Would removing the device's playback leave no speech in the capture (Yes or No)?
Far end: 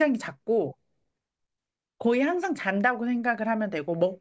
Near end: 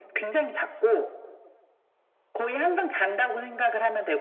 Yes